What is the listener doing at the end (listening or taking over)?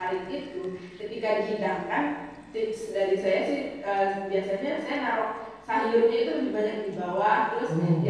listening